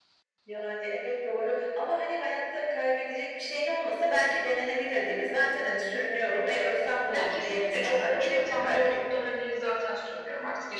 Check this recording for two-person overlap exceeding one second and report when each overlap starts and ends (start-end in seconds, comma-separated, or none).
7.1-9.0